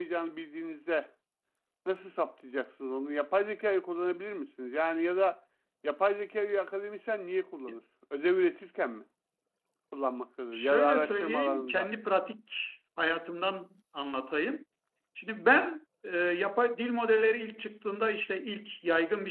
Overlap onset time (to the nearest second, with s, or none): 11 s